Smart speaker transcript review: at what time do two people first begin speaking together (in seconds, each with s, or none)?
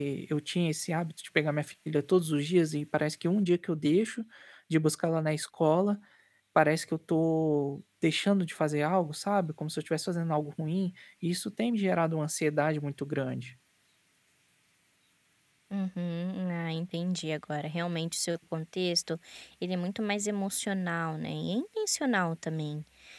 none